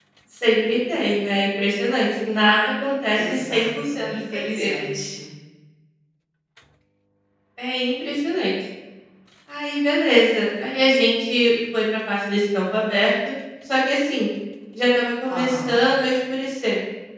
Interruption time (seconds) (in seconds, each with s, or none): 3.1 s